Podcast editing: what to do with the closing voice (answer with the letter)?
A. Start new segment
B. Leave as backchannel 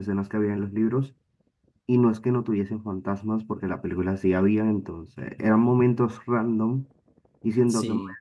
B